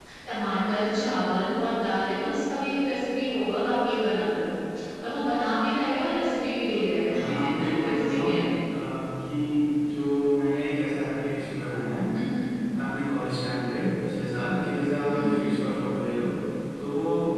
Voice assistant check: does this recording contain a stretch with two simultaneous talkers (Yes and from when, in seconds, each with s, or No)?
Yes, from 7.1 s